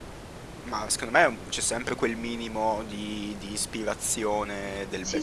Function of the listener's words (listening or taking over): taking over